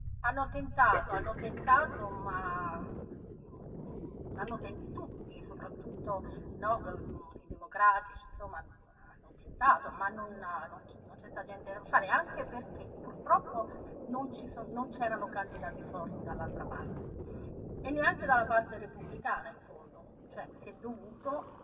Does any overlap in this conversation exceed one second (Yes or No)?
Yes